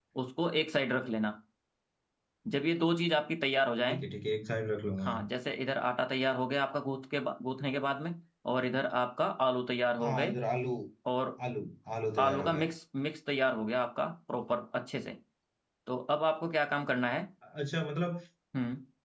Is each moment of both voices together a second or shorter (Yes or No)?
Yes